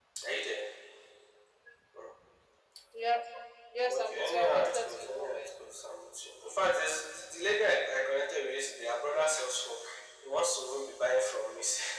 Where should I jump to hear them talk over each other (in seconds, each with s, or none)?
3.9 s